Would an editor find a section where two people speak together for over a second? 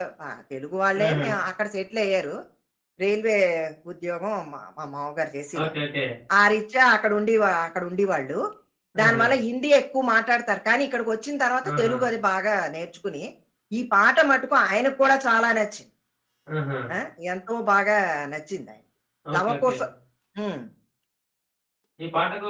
No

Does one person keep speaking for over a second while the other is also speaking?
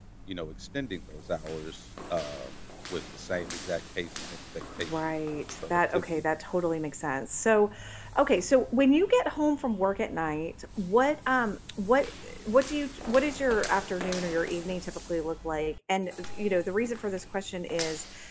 Yes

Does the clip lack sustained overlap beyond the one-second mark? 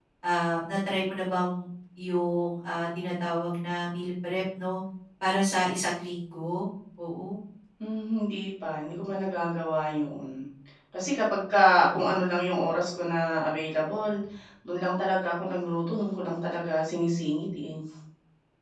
Yes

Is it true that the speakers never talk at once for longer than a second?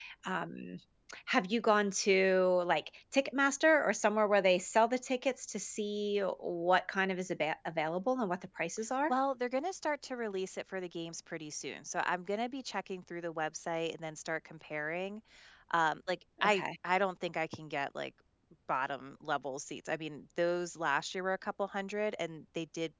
Yes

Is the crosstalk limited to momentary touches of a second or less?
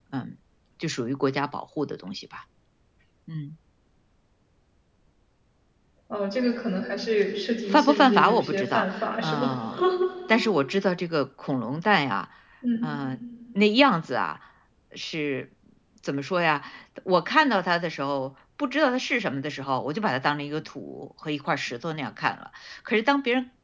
No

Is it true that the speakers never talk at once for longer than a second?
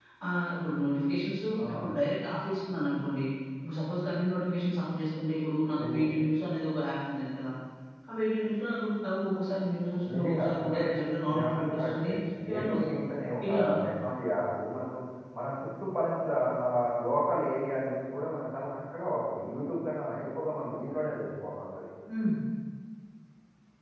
No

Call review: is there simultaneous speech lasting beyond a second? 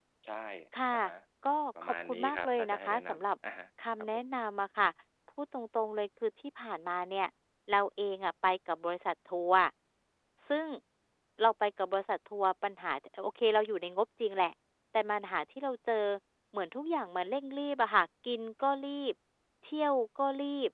Yes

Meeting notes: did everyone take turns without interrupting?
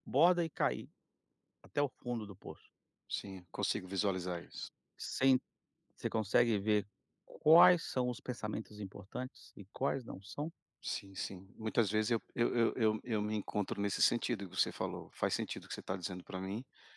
Yes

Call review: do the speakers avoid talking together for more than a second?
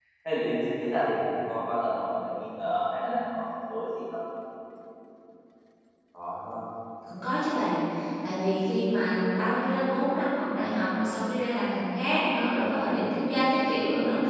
Yes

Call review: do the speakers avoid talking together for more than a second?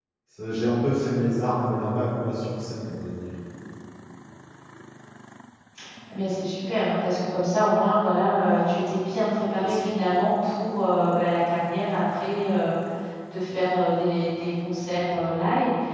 Yes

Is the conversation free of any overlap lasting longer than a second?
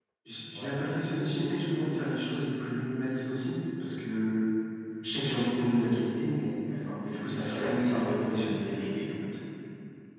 No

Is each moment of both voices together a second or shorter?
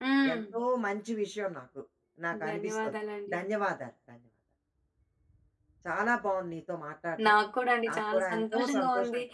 No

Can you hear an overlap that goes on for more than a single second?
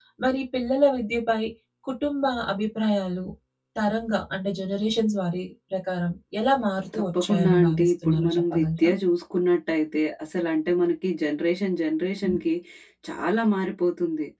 Yes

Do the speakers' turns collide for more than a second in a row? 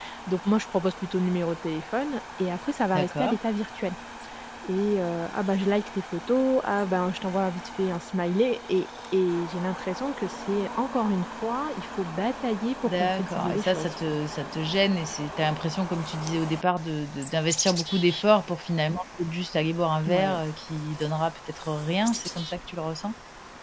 Yes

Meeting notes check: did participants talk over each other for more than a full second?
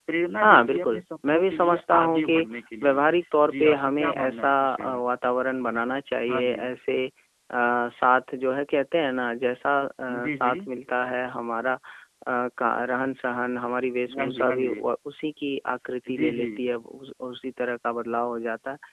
Yes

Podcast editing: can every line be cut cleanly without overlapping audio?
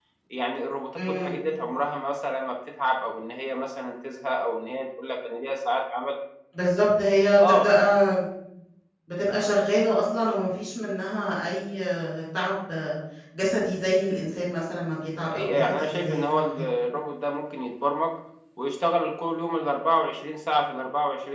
No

